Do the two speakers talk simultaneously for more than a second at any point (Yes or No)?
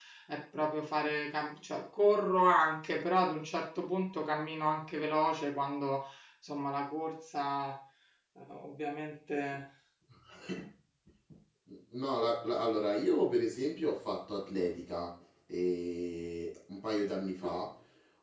No